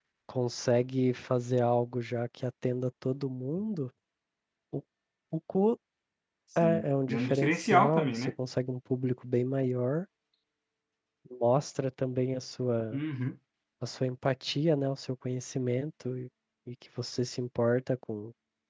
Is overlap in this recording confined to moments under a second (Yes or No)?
No